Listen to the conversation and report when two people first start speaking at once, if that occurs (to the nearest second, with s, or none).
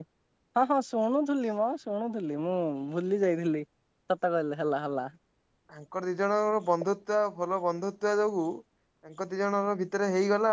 none